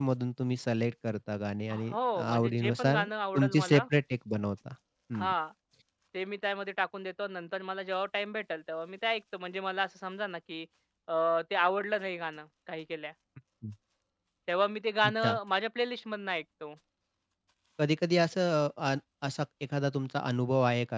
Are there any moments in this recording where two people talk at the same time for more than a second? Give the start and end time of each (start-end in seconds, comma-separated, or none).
1.7-3.0